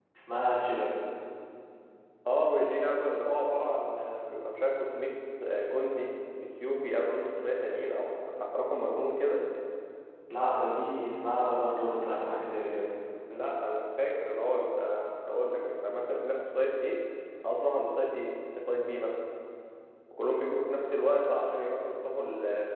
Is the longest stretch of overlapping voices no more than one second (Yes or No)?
Yes